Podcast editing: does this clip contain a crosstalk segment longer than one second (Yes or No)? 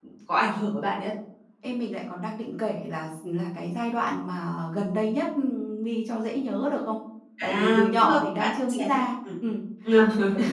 Yes